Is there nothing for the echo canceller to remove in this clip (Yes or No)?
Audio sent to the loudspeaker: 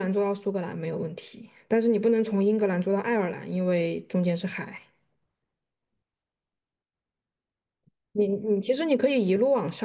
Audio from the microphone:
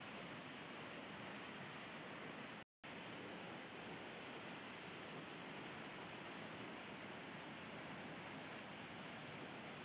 Yes